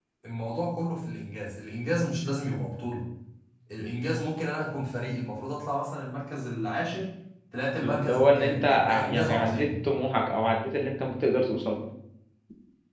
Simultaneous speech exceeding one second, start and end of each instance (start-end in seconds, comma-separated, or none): 7.8-9.7